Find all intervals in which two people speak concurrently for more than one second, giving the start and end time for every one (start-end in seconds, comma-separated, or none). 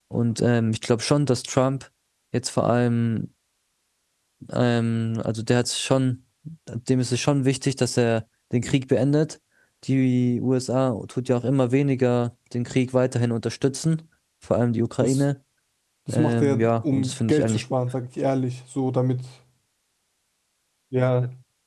16.1-17.6